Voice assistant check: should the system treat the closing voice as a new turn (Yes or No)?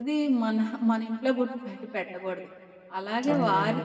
No